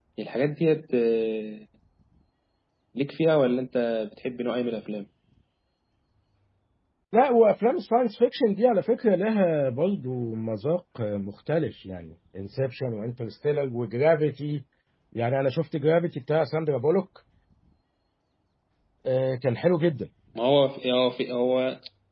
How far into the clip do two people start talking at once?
none

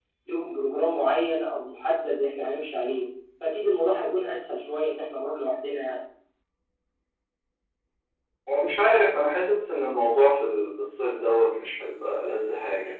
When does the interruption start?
none

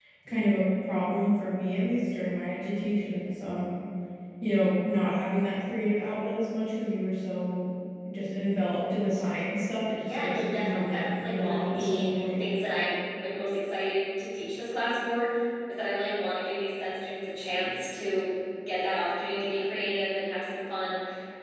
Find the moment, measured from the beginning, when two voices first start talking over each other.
10.0 s

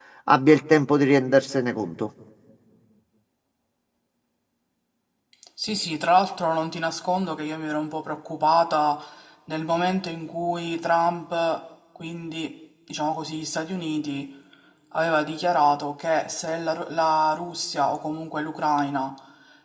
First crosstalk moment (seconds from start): none

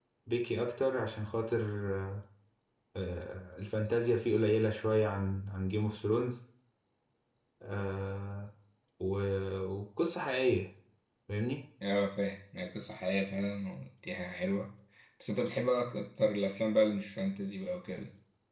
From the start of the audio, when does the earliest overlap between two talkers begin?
none

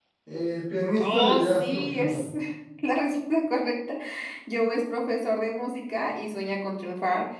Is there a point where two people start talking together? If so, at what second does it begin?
1.0 s

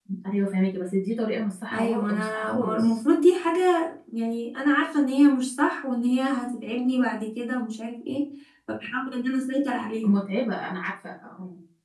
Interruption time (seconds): 1.7 s

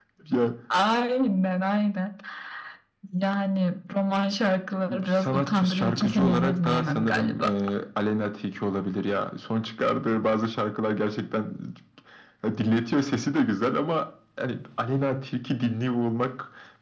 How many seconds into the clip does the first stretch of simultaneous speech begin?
4.9 s

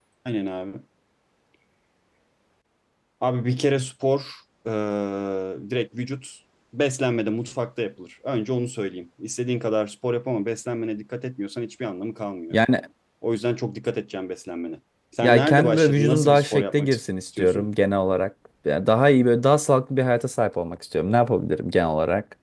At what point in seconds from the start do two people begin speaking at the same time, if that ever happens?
15.2 s

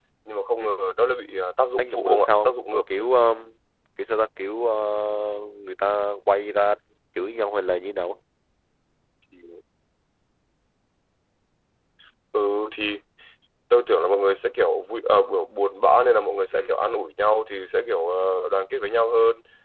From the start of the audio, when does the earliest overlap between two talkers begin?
1.8 s

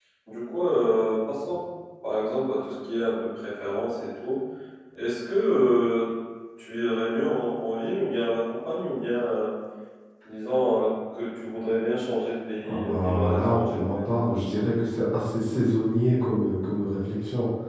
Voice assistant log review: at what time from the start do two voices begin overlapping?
12.6 s

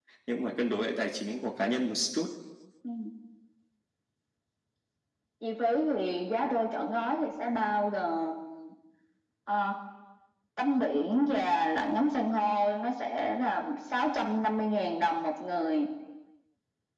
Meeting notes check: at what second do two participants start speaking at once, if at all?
none

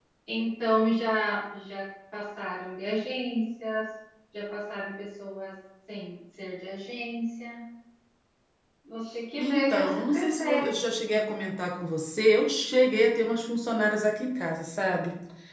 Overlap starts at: 9.4 s

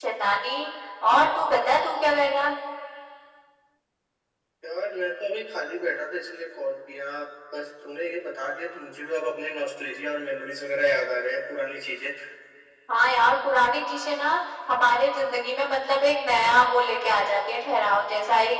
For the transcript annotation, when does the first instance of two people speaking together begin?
none

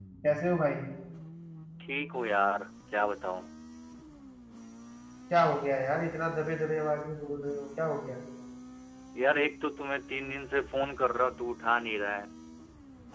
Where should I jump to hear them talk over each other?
none

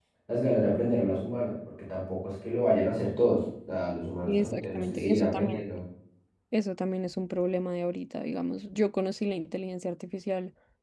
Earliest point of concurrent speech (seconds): 4.3 s

